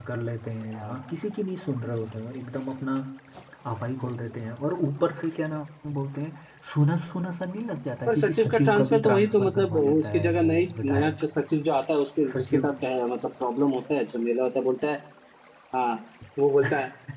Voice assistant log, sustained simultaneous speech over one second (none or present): present